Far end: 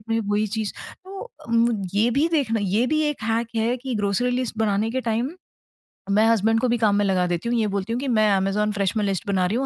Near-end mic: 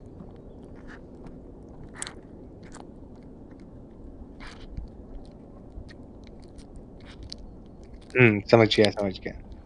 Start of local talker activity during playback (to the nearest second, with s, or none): 8 s